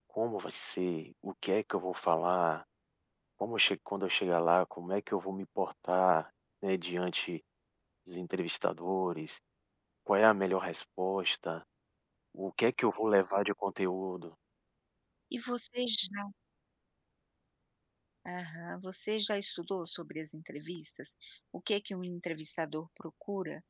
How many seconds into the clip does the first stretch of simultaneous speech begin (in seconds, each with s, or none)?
none